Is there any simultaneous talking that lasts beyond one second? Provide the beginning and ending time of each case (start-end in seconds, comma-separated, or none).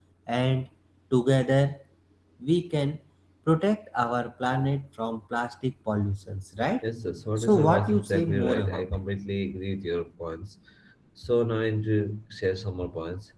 7.4-9.0